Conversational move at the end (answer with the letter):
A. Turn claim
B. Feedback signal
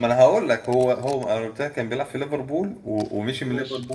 B